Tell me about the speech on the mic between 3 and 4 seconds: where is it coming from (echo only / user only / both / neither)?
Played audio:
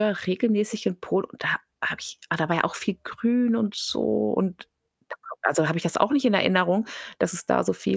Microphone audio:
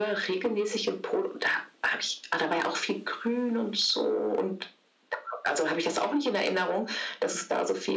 echo only